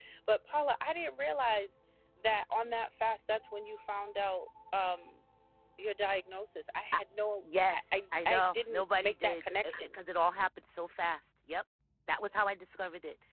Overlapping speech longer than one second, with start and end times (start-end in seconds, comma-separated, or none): 7.7-9.9